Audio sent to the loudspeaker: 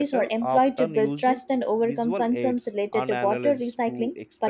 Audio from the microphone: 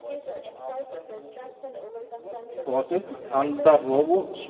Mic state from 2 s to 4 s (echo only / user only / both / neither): both